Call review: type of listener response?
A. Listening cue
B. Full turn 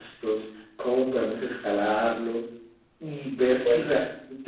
A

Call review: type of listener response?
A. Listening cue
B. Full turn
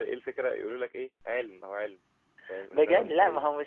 B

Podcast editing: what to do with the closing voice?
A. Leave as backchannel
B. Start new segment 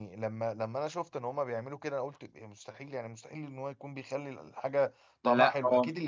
A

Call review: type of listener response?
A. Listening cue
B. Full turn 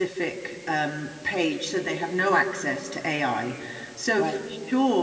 A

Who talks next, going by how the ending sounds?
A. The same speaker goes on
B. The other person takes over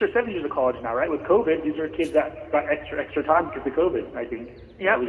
B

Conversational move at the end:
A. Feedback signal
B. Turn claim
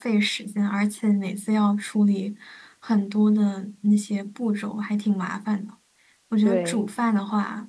A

